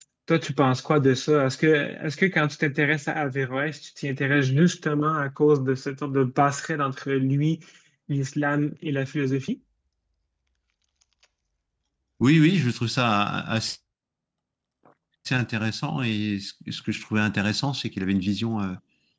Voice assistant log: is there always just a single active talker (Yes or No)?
Yes